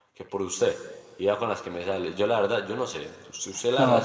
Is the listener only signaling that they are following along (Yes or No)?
No